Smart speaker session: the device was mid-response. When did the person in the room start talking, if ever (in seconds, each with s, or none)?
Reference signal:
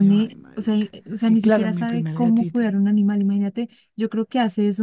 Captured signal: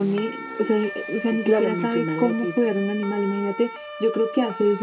none